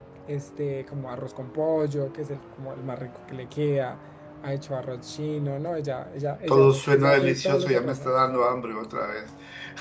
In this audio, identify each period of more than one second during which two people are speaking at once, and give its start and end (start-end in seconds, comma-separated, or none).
6.5-8.1